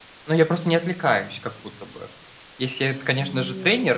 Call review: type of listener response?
listening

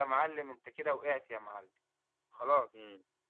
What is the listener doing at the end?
taking over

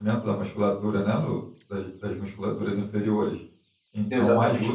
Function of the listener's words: listening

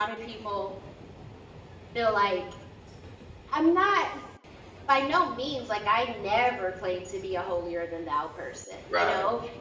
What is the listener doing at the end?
listening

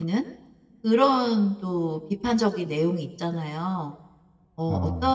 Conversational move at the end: listening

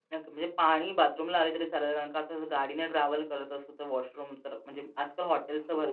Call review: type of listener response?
listening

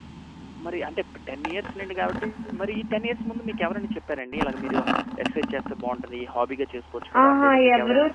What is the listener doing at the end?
taking over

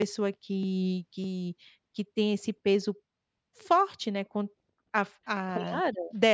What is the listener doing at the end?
listening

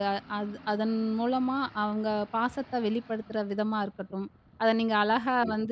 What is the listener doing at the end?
listening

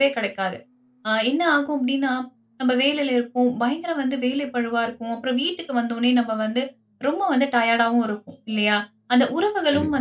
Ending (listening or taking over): listening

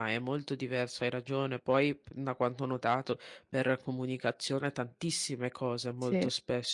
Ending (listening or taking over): listening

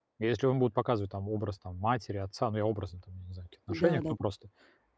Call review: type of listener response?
listening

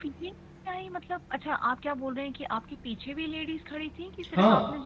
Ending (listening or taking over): taking over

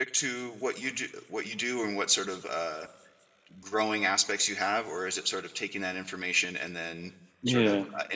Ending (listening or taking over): listening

